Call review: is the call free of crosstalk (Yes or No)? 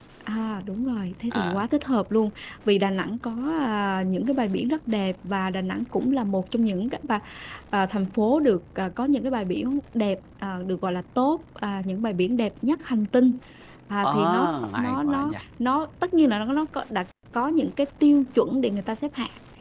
No